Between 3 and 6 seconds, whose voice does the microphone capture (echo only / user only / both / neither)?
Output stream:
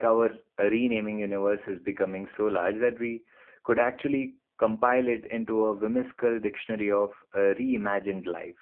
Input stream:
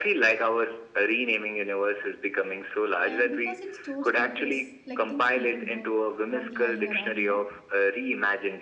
both